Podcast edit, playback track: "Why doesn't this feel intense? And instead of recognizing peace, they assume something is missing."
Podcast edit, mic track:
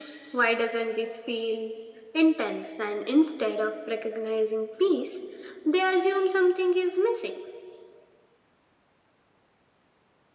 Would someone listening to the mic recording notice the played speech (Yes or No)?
Yes